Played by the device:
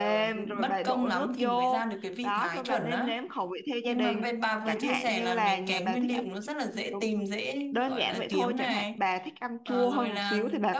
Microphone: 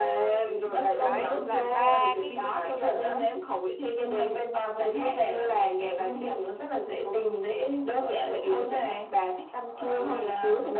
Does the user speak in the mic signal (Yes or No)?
Yes